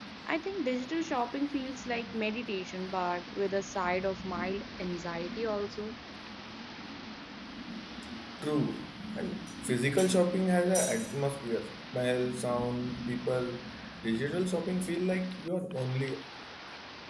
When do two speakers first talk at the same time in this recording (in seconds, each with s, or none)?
none